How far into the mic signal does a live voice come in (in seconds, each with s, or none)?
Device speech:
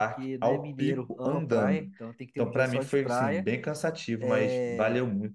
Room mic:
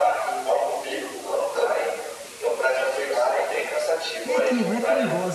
4.2 s